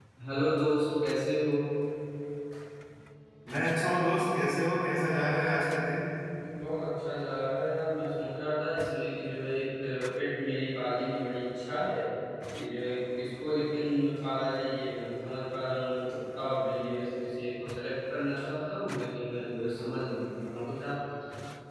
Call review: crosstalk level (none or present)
none